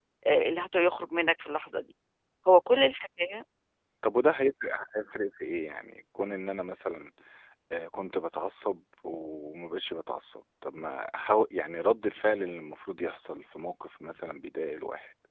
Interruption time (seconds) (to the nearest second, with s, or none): none